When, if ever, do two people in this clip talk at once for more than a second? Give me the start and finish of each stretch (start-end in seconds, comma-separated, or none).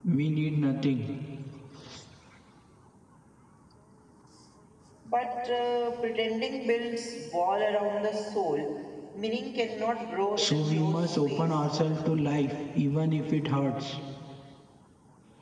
10.4-11.7